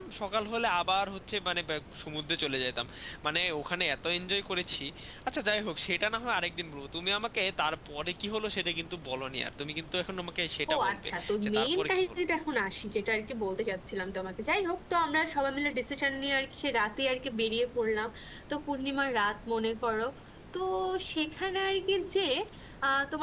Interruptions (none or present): present